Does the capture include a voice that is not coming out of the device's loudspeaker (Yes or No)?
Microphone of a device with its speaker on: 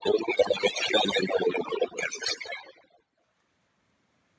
No